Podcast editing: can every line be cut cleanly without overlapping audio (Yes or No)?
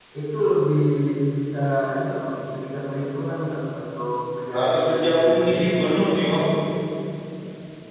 No